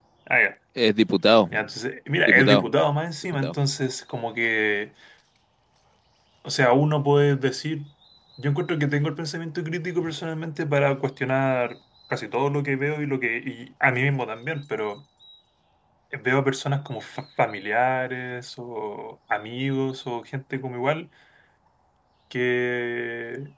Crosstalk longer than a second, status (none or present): none